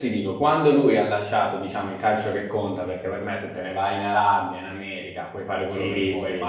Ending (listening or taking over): listening